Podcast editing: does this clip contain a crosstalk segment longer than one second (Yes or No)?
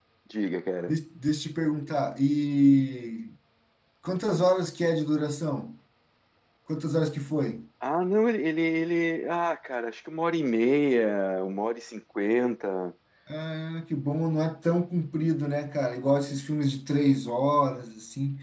No